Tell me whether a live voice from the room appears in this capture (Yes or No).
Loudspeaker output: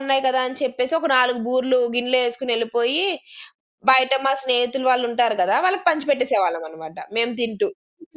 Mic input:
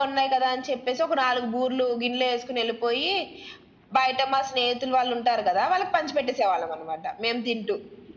No